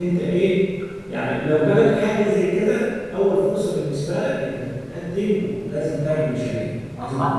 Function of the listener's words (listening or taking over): taking over